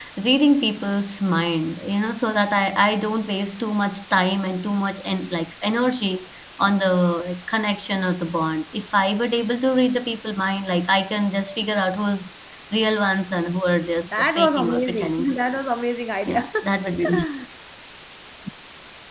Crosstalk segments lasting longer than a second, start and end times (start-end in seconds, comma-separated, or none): 14.0-15.4